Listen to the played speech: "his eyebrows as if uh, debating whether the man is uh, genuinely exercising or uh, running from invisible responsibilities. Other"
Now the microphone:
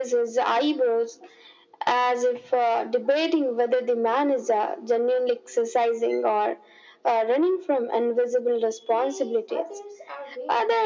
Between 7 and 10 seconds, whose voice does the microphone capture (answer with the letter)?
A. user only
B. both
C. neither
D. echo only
B